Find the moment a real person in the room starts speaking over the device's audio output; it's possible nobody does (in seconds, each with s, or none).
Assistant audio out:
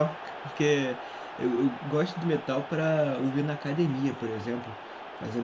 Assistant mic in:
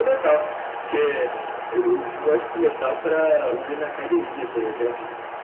none